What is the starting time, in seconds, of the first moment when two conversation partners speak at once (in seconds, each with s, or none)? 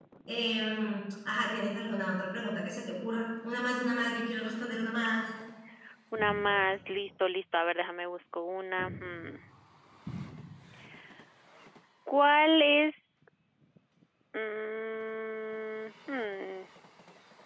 none